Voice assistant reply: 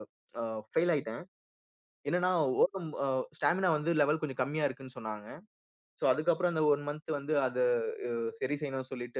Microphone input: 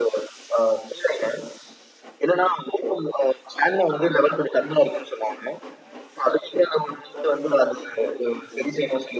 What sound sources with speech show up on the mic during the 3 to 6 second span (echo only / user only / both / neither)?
echo only